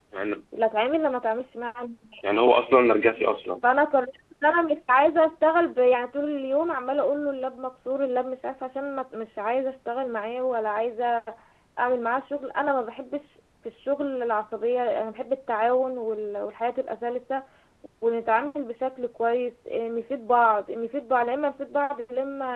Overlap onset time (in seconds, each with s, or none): none